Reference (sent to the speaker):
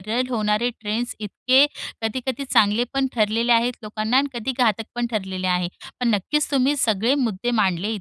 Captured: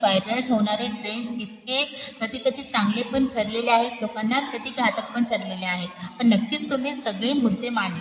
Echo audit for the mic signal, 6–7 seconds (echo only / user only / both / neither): echo only